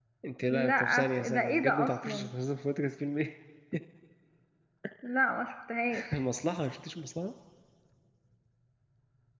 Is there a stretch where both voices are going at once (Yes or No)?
Yes